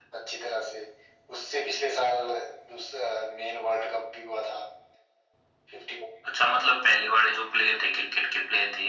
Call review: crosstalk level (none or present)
none